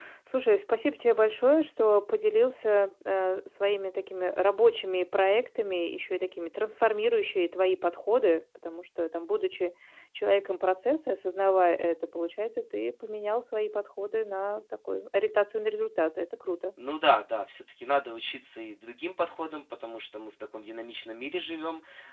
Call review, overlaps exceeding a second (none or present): none